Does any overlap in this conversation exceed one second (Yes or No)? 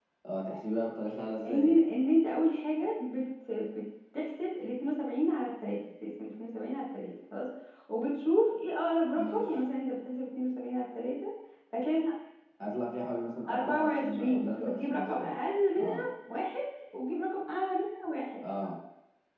Yes